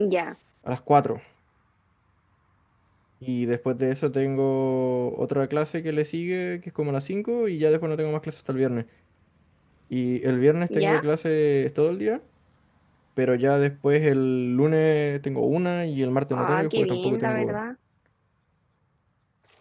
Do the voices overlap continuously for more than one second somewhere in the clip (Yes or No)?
Yes